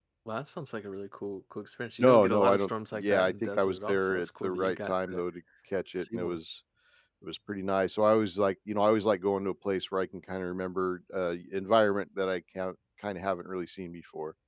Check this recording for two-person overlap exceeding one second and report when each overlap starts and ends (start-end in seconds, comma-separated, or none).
2.0-5.2